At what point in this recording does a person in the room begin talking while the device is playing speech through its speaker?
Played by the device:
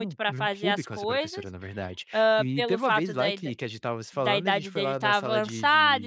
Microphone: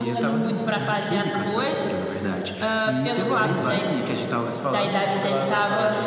3 s

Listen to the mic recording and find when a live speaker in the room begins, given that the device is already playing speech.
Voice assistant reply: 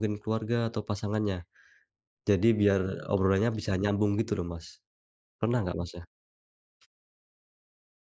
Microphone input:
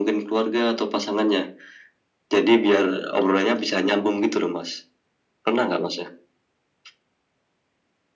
none

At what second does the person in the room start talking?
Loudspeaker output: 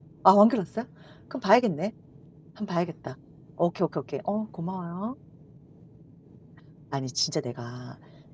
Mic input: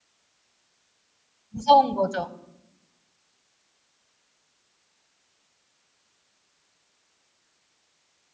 1 s

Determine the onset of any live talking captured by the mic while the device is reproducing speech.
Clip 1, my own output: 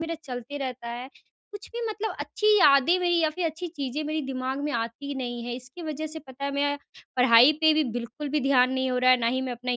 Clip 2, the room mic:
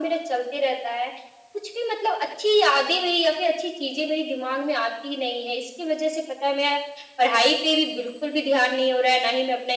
none

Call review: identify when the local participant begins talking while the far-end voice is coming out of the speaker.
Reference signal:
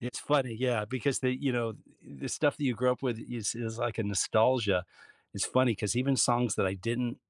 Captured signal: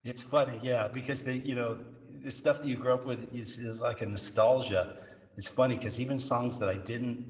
none

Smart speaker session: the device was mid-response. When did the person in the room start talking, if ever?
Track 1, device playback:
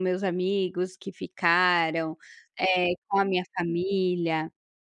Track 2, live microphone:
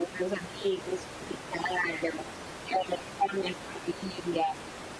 none

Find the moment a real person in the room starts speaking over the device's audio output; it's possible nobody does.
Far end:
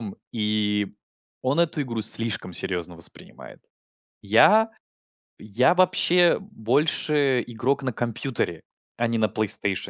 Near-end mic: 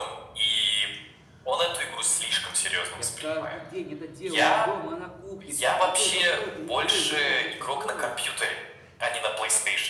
3 s

